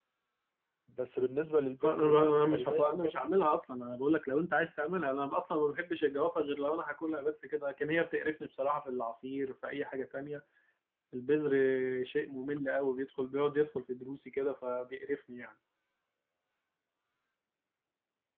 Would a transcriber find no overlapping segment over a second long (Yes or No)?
No